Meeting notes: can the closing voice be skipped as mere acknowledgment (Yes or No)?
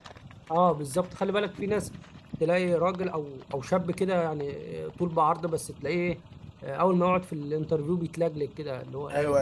No